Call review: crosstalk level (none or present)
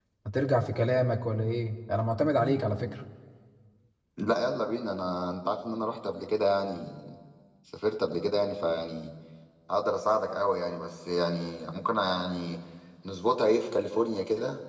none